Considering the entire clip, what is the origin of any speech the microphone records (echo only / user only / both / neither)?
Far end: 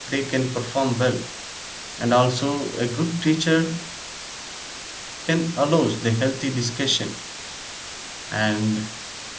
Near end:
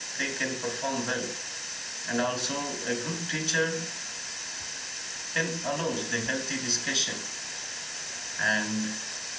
echo only